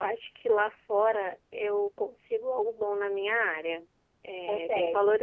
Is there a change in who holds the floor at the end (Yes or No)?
No